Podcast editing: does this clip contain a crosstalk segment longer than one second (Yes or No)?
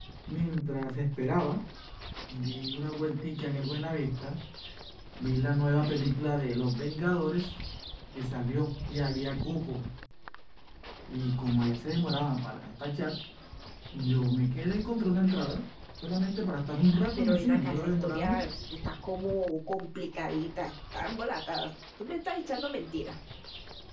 Yes